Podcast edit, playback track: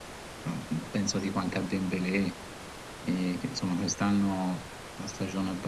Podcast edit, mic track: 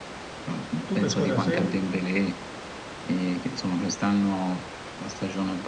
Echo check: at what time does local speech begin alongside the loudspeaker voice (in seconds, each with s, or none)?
0.9 s